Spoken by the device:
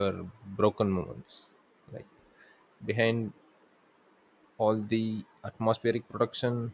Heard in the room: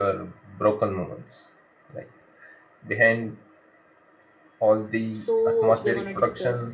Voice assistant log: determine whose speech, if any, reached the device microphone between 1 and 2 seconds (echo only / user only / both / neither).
echo only